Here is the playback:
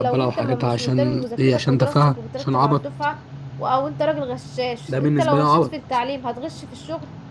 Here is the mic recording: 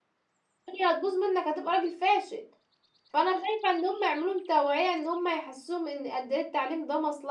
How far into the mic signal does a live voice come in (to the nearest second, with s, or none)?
1 s